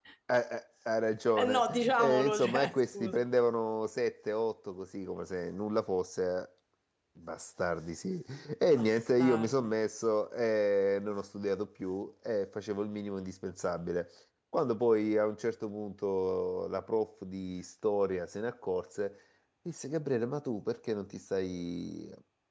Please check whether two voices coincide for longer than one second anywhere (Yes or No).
Yes